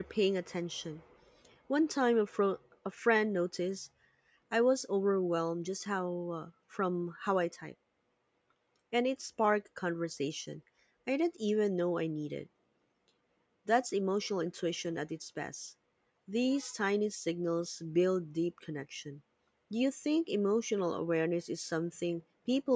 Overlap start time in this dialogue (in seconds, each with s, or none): none